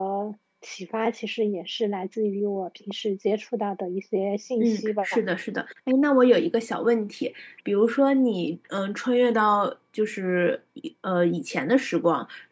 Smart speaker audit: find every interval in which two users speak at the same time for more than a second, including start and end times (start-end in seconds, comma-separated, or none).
none